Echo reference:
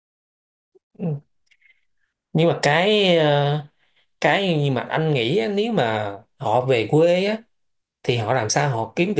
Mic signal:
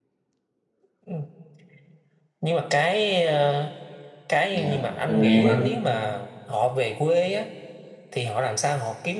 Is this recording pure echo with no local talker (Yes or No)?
No